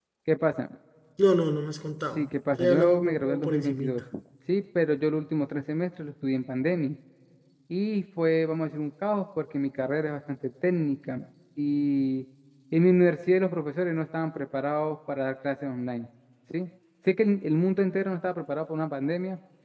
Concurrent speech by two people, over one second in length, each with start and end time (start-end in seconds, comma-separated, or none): 2.1-4.0